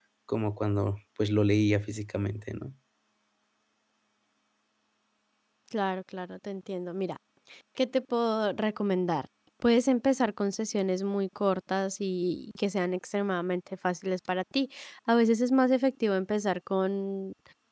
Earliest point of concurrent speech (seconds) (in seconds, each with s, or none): none